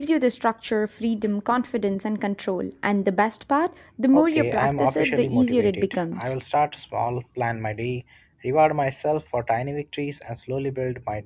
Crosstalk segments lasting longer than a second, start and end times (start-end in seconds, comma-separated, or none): 4.1-6.3